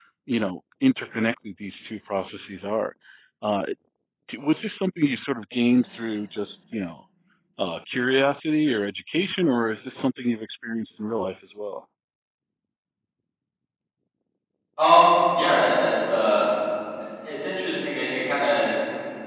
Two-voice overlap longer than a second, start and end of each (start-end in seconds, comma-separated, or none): none